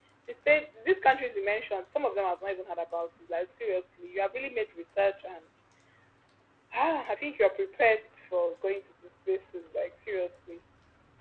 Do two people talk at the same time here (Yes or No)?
No